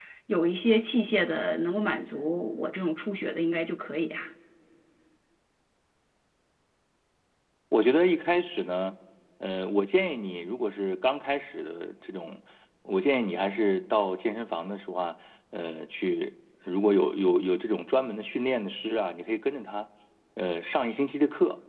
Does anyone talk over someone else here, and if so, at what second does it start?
none

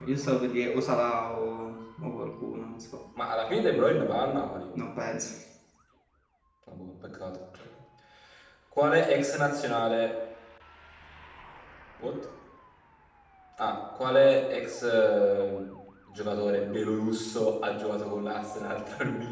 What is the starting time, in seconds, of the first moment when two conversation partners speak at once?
none

